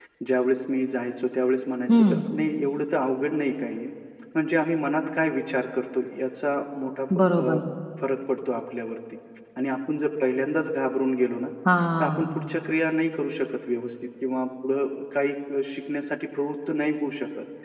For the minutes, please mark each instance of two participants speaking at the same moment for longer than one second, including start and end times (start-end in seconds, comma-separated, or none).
none